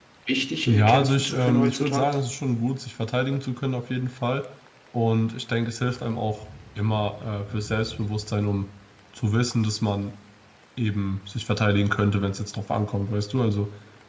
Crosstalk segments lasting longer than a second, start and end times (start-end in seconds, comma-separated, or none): 0.7-2.1